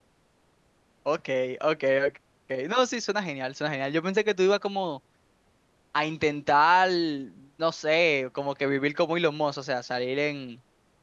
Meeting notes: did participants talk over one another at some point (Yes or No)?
No